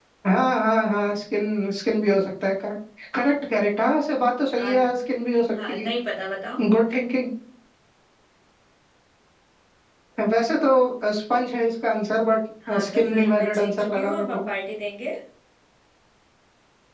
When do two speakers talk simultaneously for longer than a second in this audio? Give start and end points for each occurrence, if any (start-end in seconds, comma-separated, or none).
12.7-14.4